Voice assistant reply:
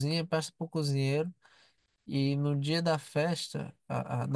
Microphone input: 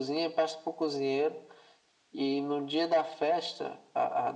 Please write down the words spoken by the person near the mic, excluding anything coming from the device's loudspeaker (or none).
none